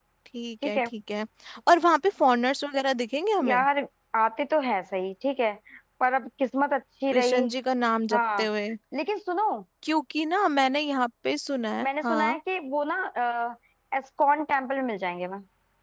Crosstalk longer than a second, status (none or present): none